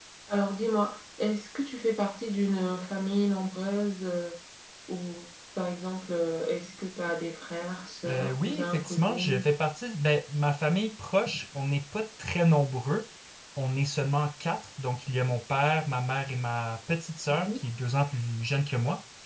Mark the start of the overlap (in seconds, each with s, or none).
8.1 s